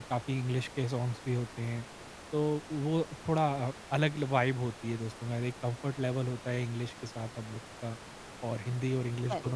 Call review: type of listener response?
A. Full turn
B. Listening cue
B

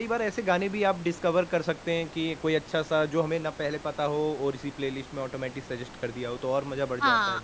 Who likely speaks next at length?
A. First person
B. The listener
B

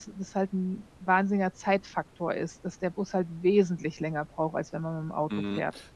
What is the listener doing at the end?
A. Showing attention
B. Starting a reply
B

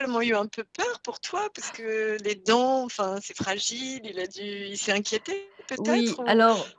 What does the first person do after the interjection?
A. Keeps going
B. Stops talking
B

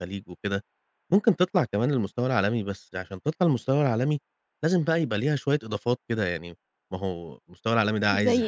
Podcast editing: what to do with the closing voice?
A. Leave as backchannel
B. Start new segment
A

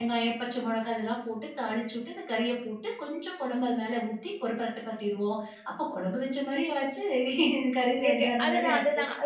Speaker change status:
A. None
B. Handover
B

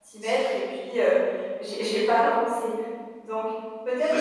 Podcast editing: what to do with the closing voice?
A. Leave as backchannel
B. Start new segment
A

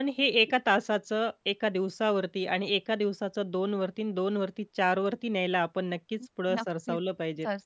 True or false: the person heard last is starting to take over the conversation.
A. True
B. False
A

